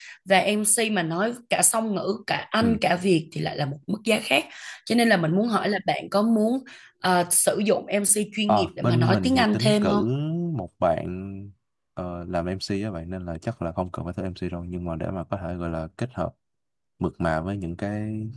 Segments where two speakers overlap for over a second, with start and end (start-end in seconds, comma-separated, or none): 8.5-10.0